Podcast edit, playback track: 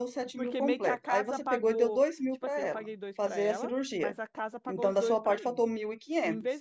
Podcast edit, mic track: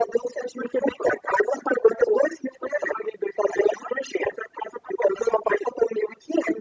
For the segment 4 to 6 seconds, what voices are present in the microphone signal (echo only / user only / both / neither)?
echo only